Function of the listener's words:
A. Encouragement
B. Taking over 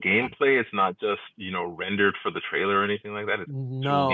B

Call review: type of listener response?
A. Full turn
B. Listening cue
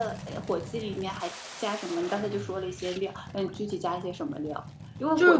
B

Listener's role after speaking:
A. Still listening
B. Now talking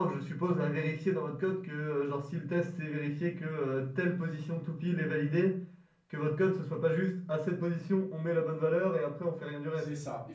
B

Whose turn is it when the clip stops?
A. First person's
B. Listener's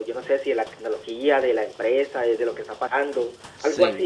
B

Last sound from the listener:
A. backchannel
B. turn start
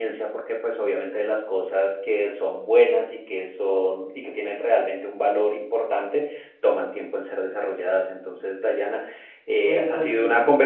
A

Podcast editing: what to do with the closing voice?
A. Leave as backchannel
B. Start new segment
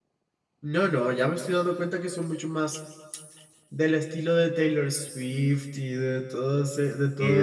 B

